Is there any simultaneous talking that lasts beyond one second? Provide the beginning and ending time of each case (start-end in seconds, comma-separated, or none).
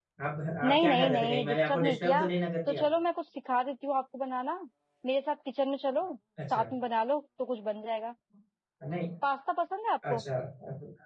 0.7-2.2